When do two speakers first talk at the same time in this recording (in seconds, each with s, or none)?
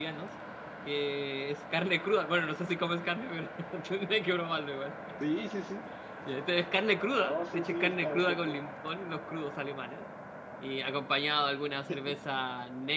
7.2 s